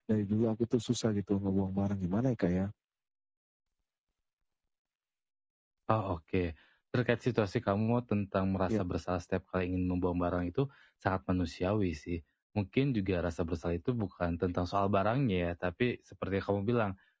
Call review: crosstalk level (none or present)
none